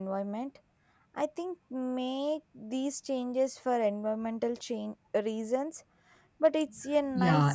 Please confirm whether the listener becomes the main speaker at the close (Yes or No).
Yes